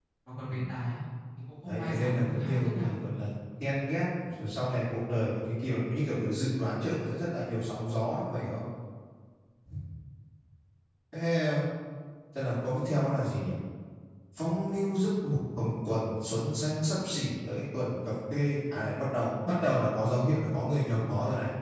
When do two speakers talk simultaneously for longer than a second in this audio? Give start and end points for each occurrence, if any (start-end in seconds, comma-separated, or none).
1.6-3.1